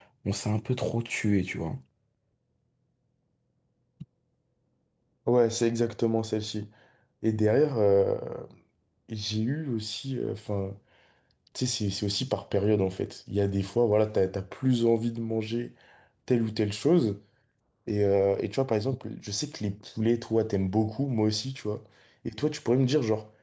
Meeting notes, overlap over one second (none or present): none